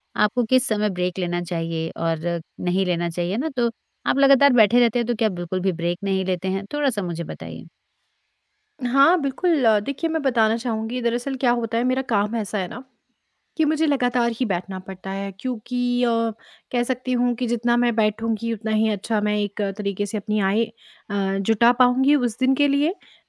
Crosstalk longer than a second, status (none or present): none